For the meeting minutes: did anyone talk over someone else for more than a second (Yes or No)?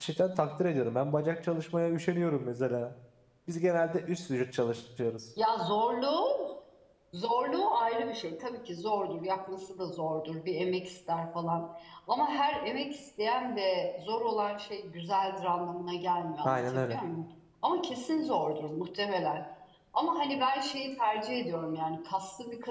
No